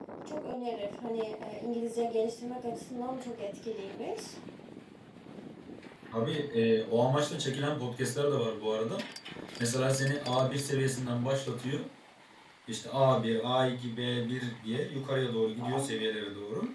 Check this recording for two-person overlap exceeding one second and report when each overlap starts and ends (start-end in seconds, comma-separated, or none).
none